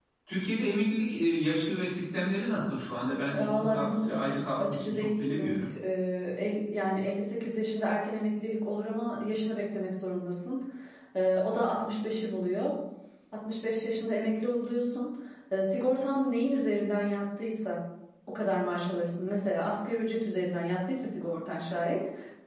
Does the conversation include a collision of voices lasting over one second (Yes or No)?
Yes